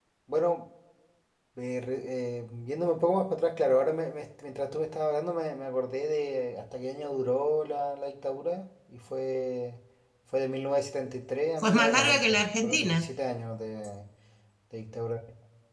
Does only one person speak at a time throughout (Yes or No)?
No